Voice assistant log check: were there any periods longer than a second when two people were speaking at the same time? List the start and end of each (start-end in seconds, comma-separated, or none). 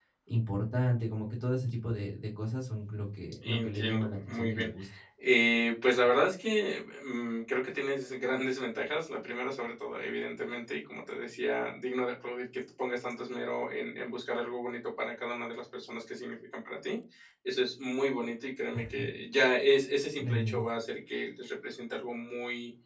3.4-4.7